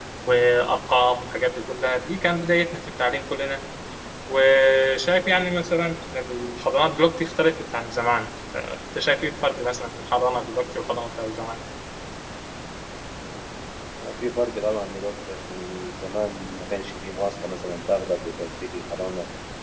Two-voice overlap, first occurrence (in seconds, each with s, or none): none